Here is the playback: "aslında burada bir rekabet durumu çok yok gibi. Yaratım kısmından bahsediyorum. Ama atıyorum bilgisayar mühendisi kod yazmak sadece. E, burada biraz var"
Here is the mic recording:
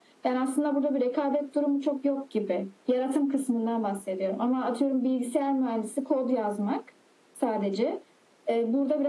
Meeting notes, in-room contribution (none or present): none